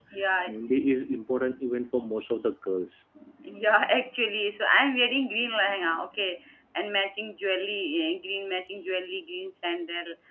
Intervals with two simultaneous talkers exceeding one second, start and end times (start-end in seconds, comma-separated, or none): none